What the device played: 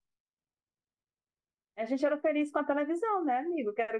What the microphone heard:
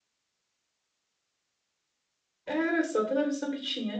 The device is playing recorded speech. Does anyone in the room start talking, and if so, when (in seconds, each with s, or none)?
2.5 s